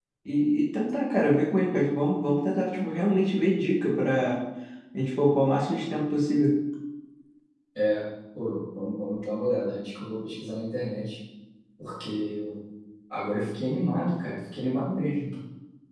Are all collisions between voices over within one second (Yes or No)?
Yes